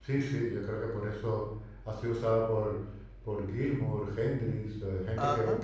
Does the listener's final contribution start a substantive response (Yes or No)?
No